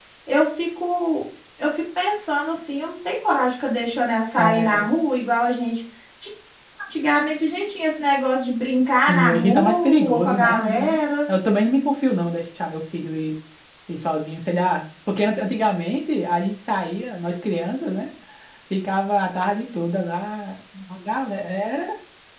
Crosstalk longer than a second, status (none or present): present